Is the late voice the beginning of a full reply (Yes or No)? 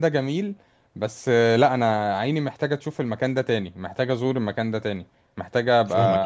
No